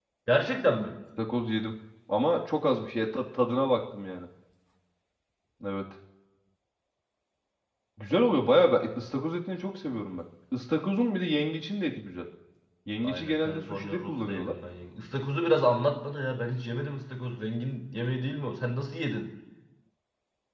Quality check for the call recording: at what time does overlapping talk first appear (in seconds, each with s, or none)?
13.0 s